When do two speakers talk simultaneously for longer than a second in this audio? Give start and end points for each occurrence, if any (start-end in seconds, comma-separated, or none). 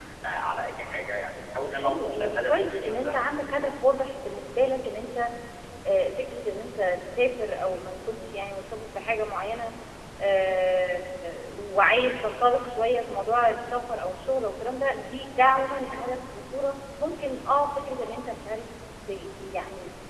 1.7-3.7